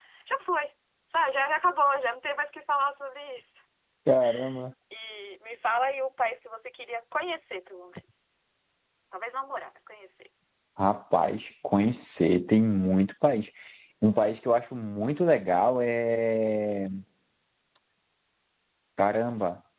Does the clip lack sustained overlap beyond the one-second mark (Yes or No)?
Yes